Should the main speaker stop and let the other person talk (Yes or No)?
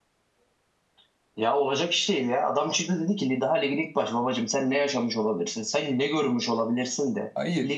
No